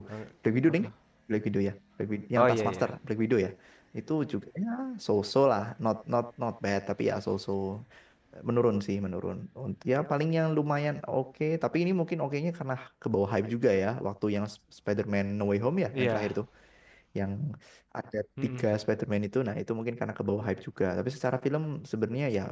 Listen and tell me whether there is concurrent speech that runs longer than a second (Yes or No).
No